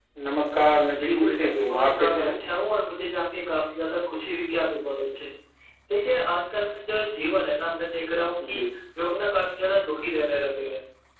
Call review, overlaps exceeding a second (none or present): present